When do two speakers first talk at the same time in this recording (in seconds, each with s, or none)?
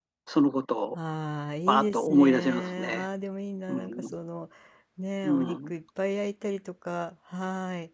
1.7 s